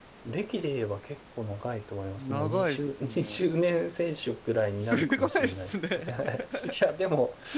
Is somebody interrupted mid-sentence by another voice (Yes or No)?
Yes